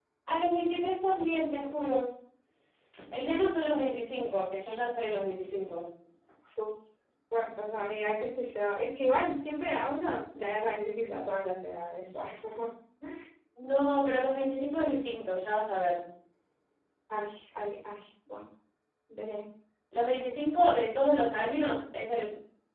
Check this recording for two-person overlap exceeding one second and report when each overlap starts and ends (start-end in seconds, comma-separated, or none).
none